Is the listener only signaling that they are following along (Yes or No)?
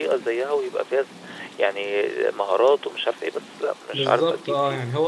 No